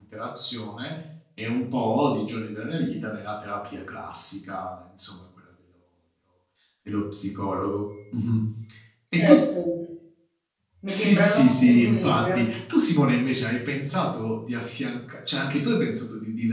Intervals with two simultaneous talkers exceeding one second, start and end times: 10.9-12.5

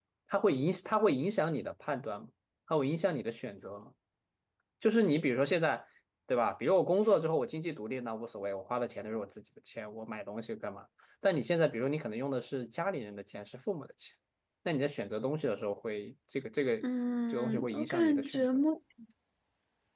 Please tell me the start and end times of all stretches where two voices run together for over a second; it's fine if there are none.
17.3-18.6

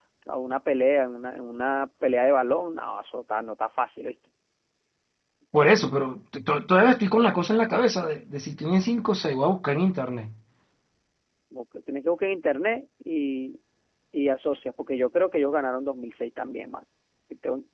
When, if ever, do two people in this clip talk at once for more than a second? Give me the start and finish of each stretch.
none

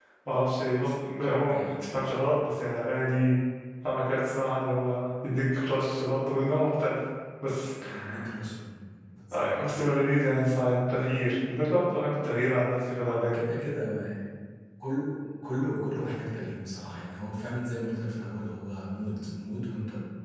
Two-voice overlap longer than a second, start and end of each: none

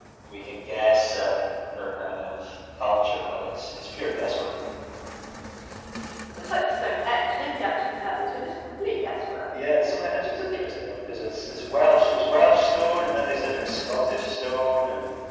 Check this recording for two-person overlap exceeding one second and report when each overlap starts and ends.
none

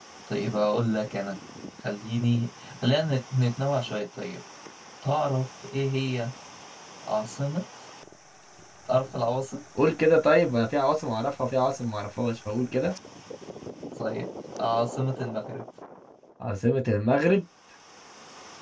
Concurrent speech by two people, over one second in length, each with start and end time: none

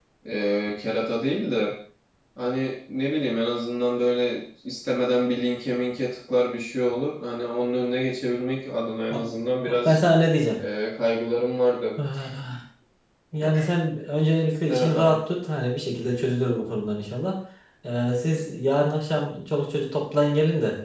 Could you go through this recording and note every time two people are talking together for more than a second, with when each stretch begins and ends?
none

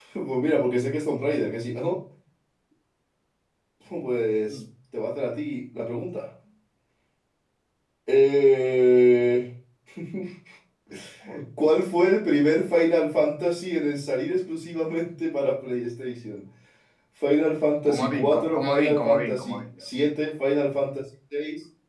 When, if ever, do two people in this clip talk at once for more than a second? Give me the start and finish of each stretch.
17.9-19.6

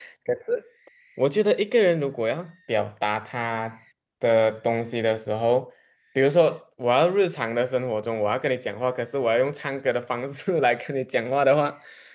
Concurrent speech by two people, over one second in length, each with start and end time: none

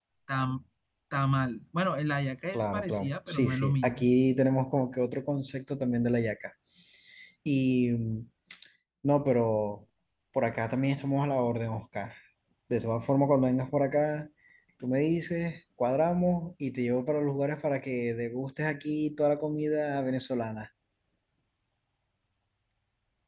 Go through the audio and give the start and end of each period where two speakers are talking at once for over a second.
2.5-4.1

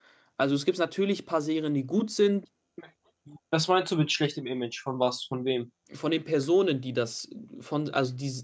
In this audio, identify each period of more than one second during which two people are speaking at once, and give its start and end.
none

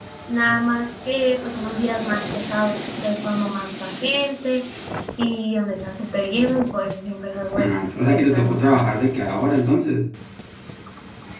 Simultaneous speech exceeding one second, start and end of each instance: 7.6-8.9

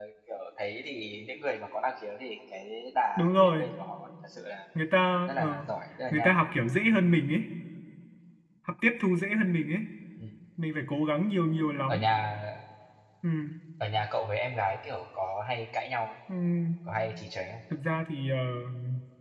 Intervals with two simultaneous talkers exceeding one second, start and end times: none

